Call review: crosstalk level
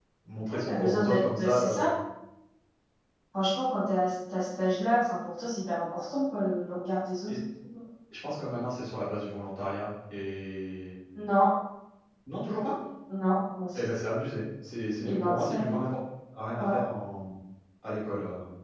present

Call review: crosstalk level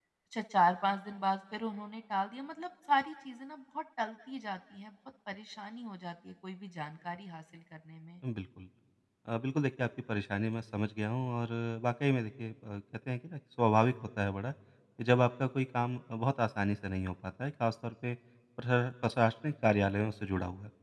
none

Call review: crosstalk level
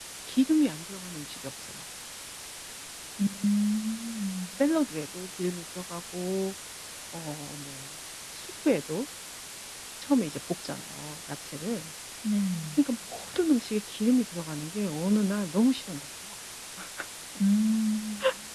none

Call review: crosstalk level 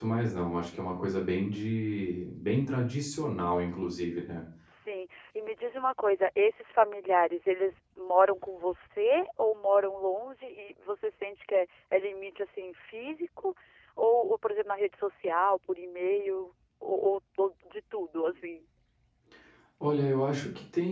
none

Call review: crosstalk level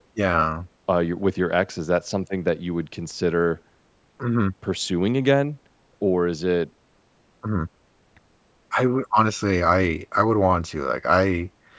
none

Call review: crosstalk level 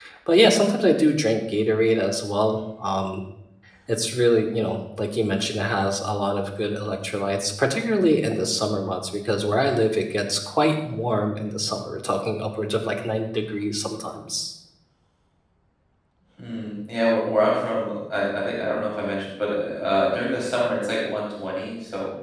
none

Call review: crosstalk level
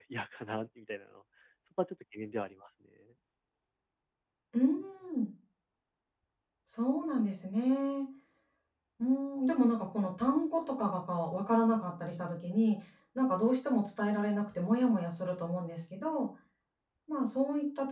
none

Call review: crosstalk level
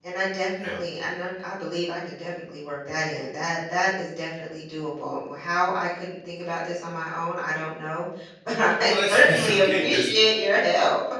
present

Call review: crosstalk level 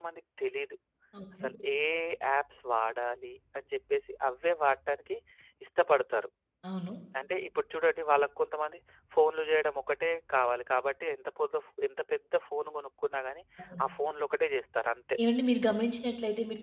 none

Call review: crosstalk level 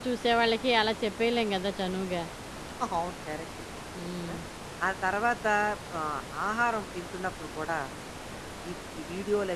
none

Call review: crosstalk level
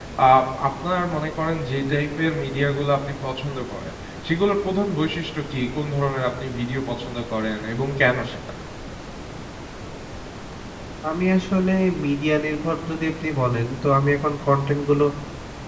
none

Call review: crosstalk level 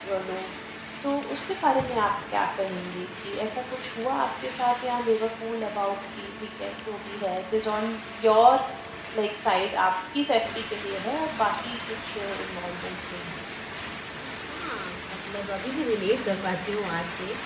none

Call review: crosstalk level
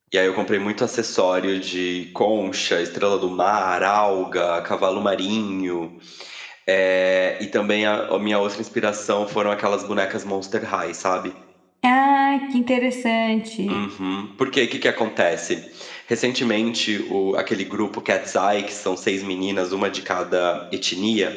none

